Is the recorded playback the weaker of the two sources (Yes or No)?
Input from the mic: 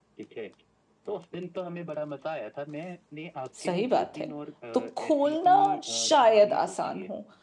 Yes